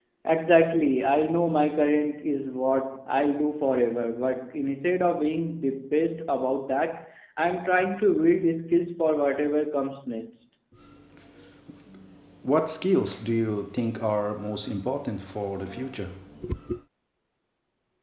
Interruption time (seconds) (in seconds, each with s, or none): none